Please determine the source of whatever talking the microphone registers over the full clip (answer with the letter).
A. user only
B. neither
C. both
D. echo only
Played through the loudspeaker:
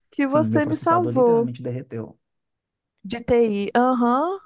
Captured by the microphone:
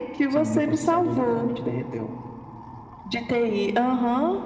D